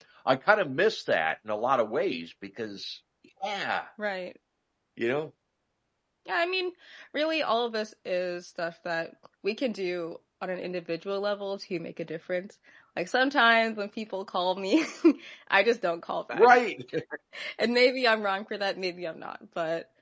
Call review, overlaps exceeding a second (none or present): none